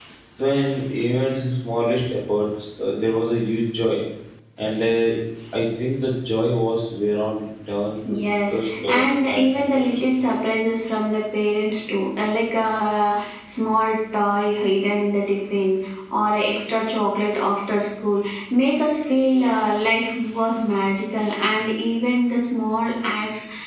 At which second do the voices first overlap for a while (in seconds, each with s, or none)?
8.1 s